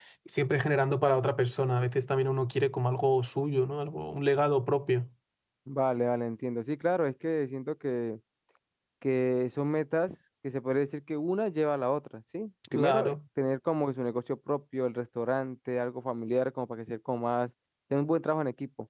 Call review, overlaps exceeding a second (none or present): none